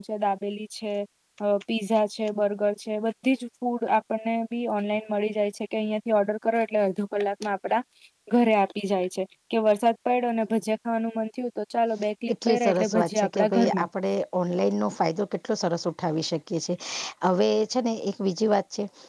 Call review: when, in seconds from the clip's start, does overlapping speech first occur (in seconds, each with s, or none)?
12.4 s